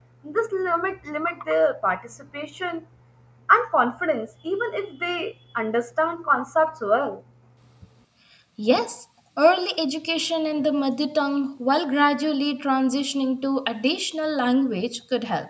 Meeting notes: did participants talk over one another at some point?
No

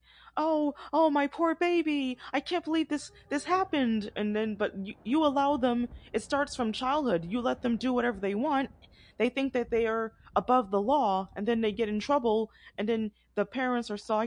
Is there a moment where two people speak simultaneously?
No

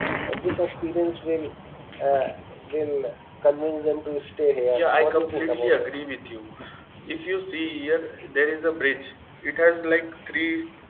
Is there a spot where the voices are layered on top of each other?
Yes, from 4.7 s

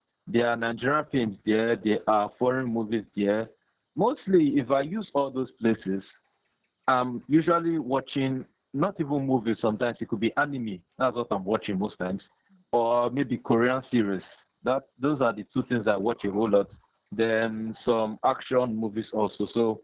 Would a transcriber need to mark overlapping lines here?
No

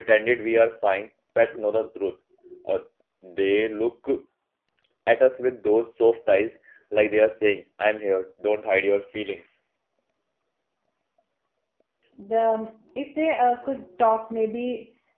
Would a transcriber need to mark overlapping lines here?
No

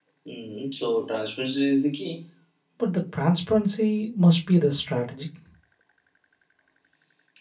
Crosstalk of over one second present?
No

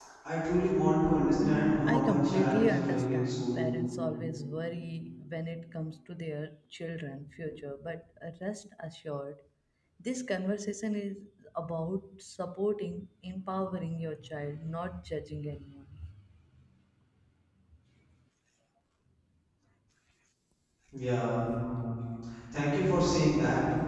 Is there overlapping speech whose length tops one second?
Yes, from 1.4 s

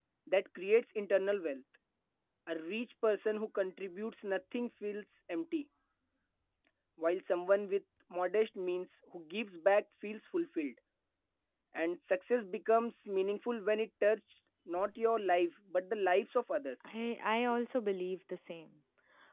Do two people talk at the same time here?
No

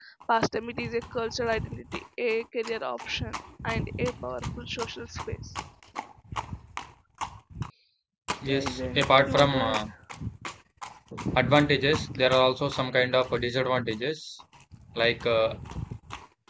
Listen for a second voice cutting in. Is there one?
Yes, from 8.5 s

